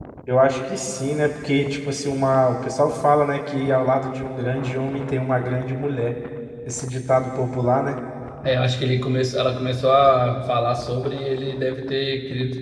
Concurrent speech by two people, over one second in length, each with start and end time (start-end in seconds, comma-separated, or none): none